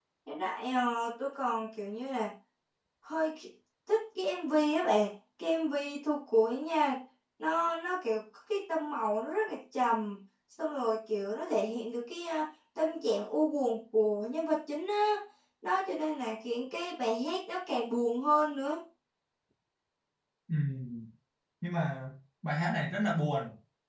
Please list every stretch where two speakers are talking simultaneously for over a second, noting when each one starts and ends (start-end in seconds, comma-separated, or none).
none